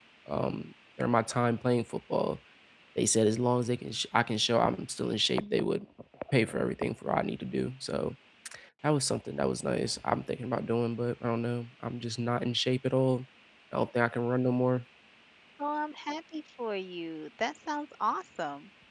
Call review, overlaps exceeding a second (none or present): none